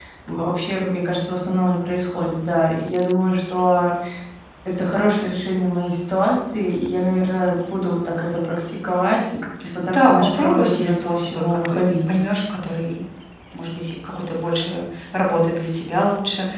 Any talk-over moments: Yes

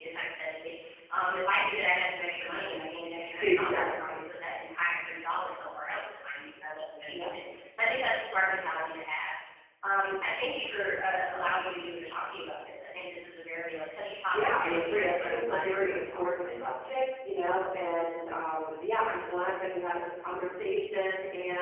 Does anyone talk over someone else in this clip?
Yes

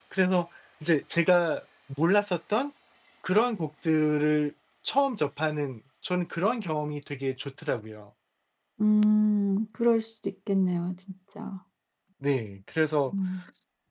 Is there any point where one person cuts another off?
No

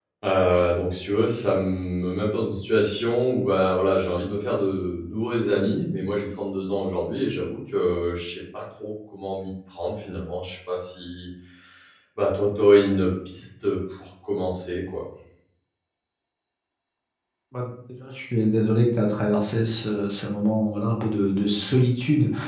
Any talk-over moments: No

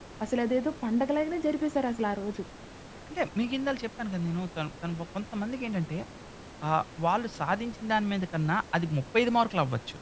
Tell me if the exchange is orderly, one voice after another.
Yes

